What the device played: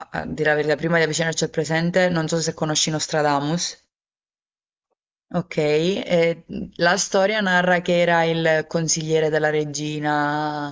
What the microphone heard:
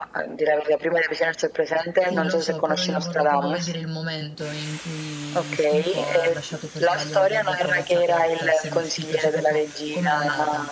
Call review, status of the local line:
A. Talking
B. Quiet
A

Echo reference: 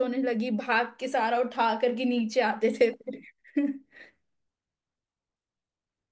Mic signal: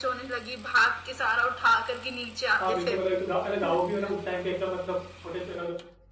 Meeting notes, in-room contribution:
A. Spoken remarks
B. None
A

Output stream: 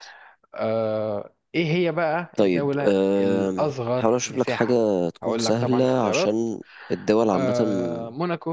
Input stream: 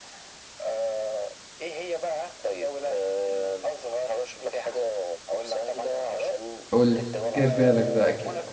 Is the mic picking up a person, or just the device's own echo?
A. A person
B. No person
A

